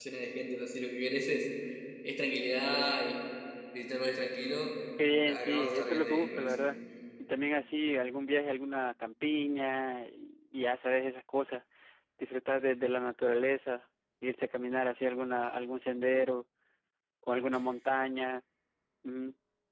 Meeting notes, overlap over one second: present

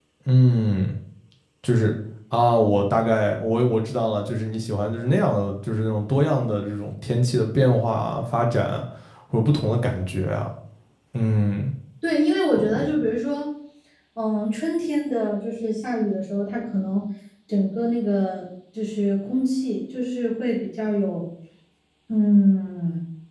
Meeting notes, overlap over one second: none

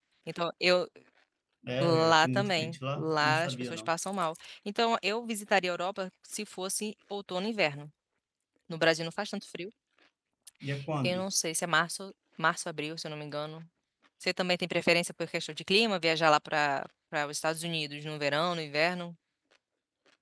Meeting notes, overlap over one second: present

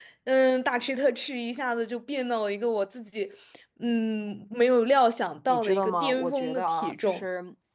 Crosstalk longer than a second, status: present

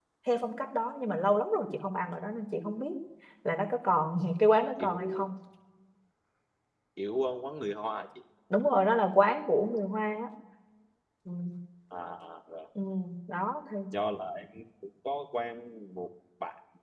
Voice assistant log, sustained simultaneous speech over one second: none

